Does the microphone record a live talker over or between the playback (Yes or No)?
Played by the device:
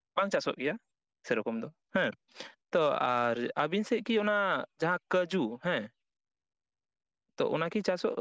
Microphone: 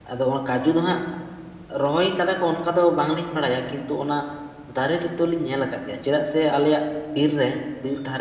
Yes